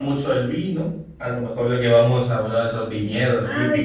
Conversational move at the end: taking over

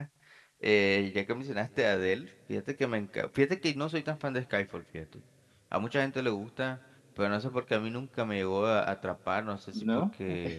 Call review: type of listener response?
listening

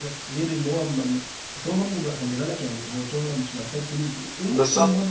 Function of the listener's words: listening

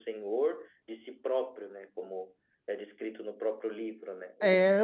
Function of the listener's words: taking over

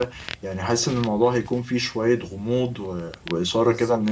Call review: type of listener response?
listening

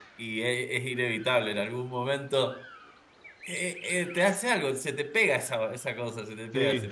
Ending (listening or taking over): taking over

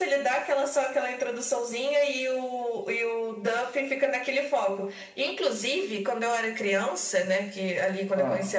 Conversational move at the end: listening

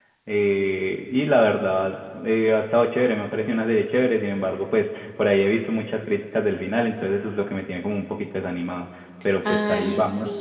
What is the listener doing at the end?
taking over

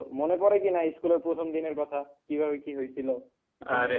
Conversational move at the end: taking over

